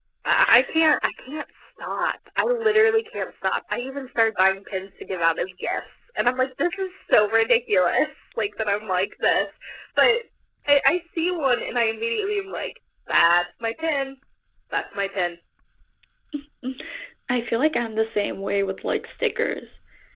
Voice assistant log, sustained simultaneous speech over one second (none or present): none